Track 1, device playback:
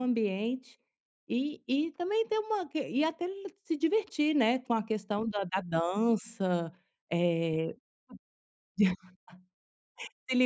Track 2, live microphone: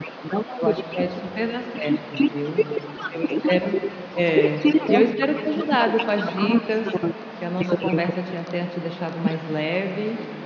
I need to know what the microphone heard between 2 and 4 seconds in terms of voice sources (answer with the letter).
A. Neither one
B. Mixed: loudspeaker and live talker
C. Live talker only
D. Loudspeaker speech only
B